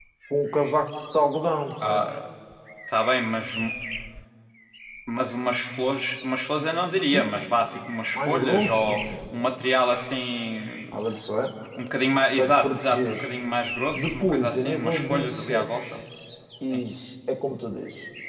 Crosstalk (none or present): present